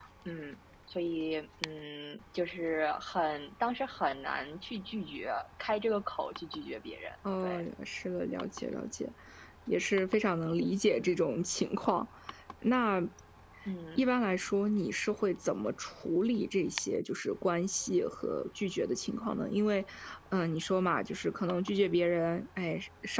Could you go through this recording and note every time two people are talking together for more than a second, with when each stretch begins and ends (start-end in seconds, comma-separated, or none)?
none